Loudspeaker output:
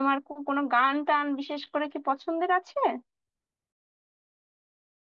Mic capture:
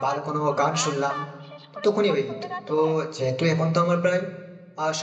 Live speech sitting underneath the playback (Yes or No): No